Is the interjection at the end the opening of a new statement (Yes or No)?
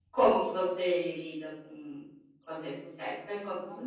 Yes